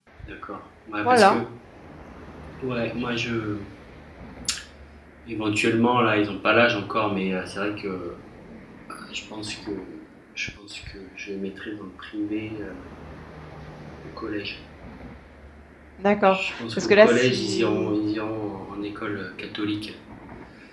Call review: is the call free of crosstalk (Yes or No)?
No